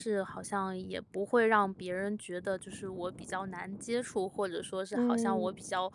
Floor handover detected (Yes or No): No